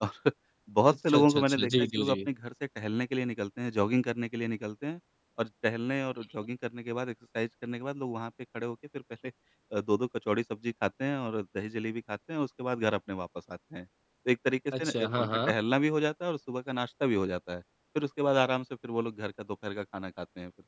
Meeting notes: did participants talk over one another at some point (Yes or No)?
Yes